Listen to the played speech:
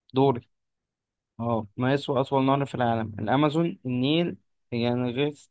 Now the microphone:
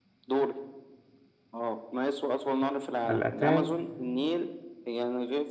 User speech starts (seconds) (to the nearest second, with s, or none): 3 s